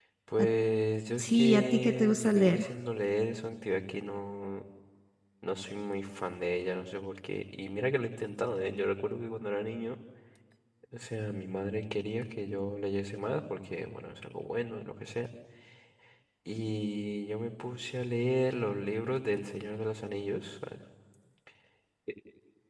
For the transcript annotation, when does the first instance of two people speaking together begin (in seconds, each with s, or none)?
1.2 s